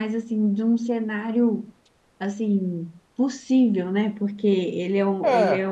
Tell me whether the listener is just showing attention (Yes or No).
Yes